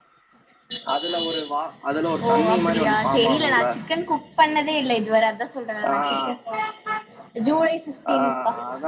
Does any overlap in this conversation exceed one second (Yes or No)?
Yes